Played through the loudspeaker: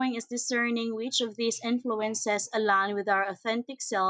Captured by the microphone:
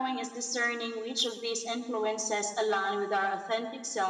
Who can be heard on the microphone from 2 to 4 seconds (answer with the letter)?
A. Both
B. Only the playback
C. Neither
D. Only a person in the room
B